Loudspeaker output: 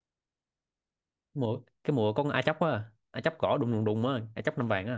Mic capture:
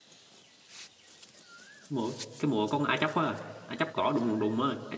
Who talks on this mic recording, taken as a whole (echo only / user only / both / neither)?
echo only